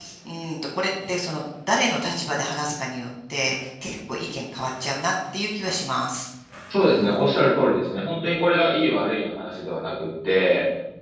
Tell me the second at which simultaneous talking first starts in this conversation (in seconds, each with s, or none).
none